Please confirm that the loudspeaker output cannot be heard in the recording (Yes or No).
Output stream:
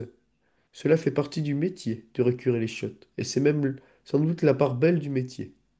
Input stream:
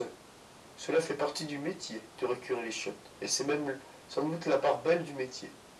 No